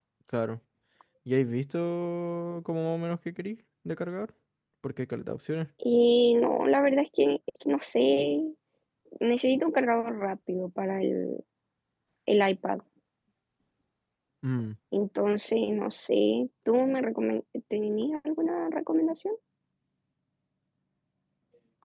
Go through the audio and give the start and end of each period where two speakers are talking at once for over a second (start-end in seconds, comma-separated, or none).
none